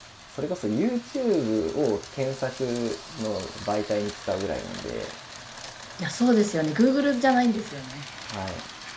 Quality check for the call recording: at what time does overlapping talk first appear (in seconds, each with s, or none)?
none